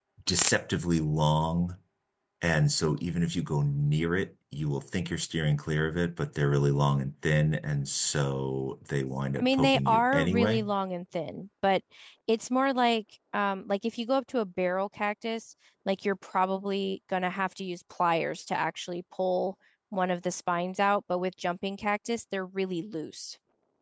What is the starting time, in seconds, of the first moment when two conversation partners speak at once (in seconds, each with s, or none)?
9.4 s